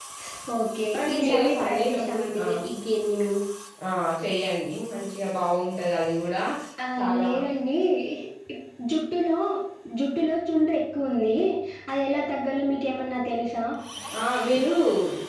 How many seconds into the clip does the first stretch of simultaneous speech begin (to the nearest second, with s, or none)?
1 s